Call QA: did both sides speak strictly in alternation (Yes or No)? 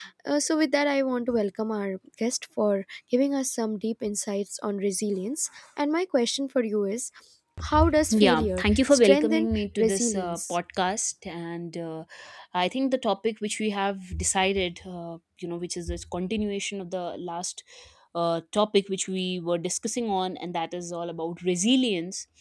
No